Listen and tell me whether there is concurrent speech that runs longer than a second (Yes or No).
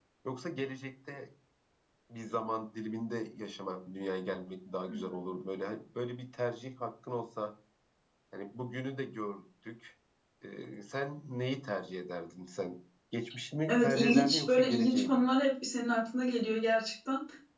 Yes